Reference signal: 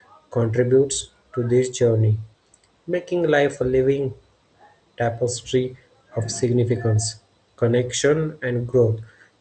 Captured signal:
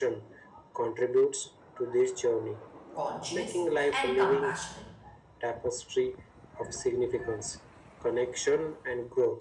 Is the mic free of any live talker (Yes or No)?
No